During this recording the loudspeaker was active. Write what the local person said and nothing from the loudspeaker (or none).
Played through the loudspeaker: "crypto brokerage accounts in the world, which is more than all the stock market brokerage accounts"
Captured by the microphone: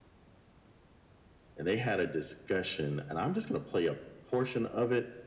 and they had a discussion, and I'm just going to play a portion of it